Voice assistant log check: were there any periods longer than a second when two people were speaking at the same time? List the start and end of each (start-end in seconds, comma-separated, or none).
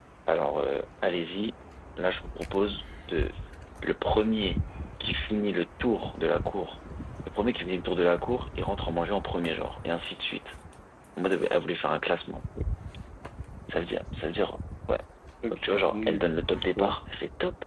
15.5-16.9